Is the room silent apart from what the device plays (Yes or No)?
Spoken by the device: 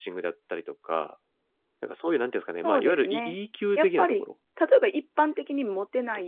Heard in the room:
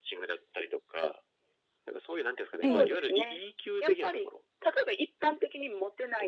No